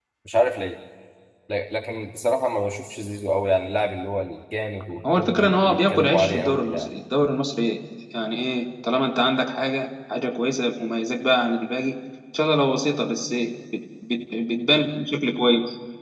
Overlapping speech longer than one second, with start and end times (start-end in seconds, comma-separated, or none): 5.2-6.9